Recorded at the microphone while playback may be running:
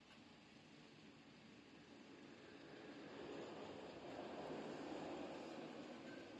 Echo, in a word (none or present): none